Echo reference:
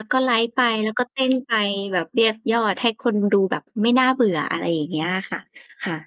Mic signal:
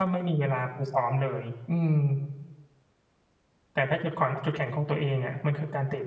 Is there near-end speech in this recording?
Yes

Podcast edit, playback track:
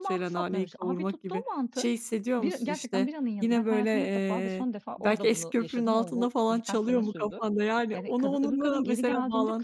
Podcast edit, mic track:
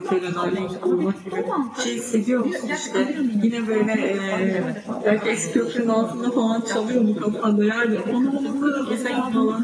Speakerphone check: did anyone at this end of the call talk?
Yes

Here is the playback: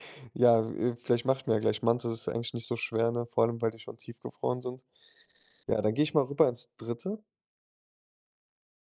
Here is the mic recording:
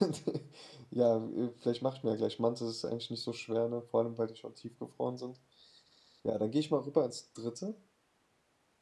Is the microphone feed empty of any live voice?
Yes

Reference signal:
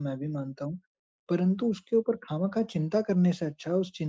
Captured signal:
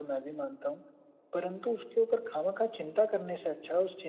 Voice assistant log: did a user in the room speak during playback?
No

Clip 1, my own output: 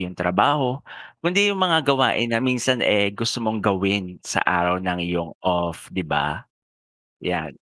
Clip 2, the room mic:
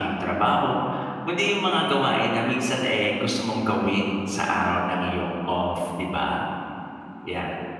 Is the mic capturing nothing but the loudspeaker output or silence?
Yes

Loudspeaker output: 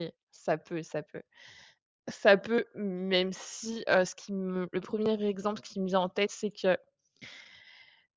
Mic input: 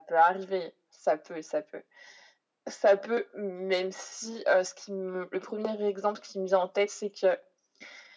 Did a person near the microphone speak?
No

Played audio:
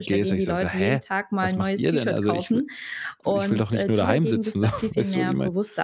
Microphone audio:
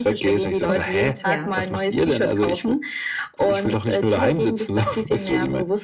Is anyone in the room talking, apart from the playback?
Yes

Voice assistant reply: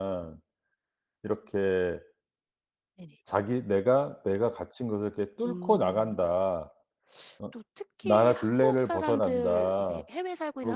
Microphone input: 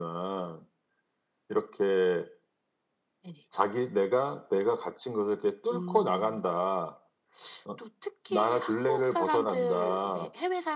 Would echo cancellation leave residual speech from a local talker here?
No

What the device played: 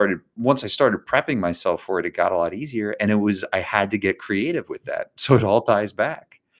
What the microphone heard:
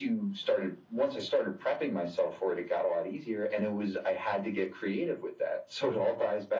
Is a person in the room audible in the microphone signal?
No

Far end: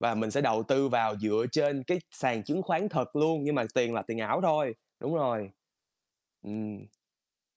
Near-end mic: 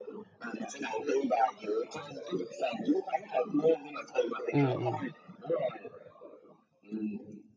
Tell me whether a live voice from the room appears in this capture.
Yes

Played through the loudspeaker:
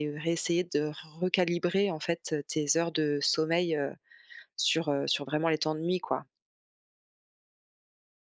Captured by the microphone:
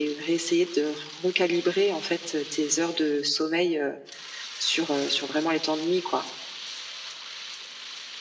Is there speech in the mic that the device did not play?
No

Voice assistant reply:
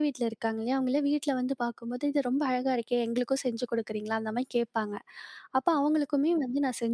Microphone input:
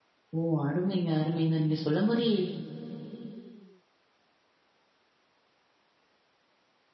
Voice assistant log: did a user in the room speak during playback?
Yes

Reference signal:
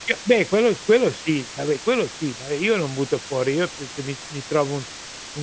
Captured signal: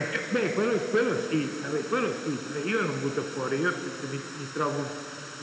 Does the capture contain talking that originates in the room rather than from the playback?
No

